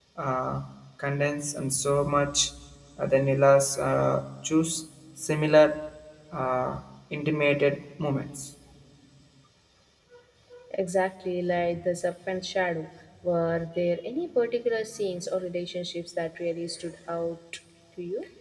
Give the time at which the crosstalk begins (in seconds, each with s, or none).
none